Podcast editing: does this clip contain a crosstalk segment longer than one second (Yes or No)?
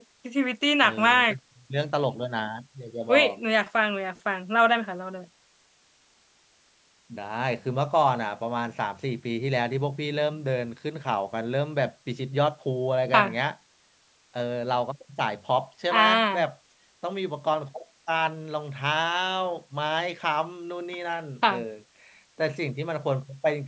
No